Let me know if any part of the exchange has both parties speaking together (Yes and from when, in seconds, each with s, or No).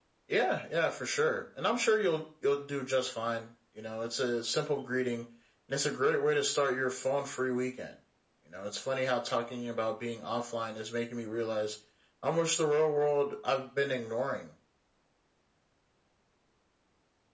No